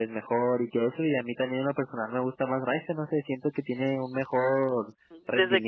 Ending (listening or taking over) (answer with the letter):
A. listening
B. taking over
B